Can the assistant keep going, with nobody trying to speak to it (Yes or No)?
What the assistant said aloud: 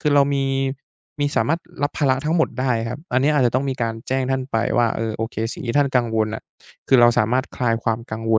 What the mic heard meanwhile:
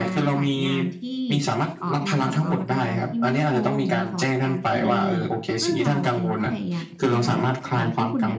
No